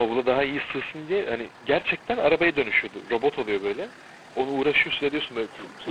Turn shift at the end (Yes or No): No